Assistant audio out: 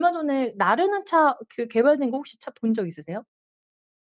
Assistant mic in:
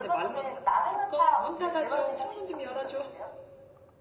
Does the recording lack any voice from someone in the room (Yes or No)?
No